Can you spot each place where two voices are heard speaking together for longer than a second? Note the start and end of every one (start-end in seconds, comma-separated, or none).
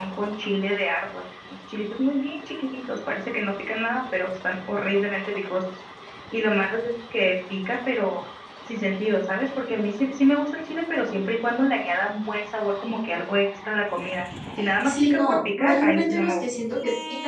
14.8-16.4